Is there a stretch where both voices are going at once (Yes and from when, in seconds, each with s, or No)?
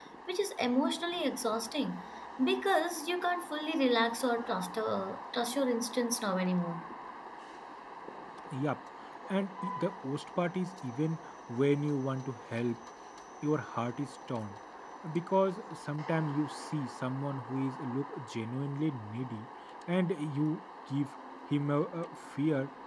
No